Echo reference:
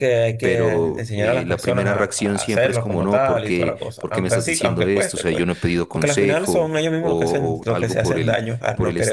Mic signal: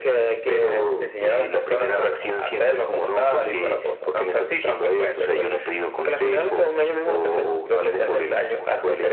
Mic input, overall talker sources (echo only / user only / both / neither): both